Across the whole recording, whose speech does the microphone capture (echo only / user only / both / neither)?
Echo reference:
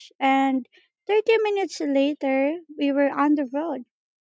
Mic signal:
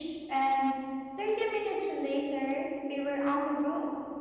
echo only